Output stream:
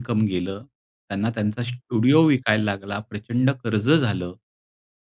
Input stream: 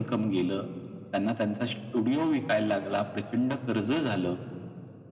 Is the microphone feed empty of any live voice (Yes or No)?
Yes